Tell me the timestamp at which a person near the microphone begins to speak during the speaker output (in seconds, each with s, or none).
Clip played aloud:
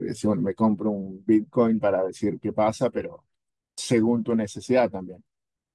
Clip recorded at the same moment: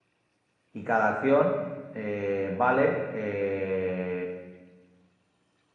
0.7 s